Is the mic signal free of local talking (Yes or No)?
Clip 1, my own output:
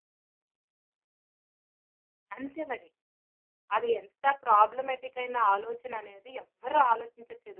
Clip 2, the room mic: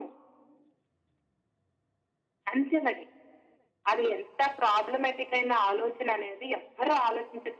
Yes